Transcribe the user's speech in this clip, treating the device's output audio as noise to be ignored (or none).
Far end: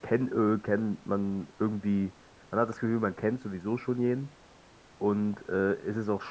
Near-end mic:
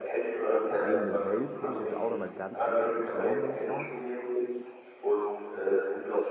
eine eigene Welt, finde ich. Ist auch nochmal ganz anders wie Köln, muss ich sagen.